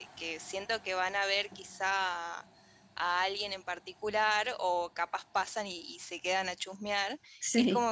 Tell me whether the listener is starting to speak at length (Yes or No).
No